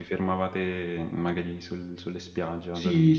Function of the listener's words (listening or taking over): taking over